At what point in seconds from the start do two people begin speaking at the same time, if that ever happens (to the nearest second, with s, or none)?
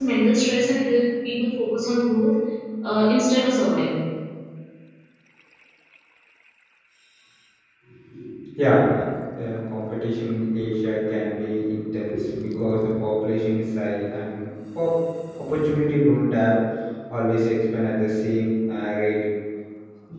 none